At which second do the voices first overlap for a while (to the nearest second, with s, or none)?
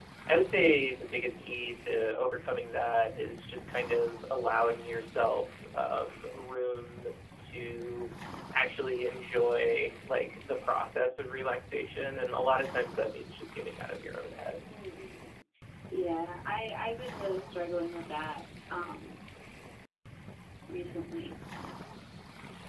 none